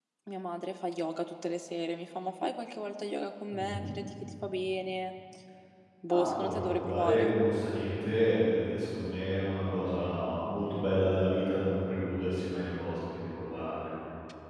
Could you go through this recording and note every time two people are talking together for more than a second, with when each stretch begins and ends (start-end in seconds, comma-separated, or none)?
6.1-7.3